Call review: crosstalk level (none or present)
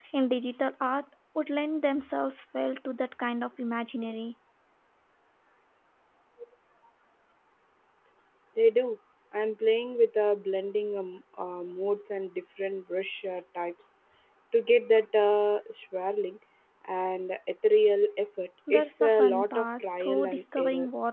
present